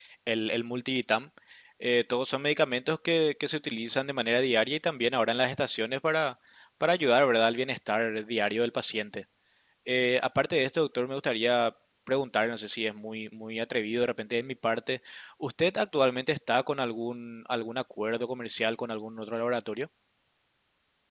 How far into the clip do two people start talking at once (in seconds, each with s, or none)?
none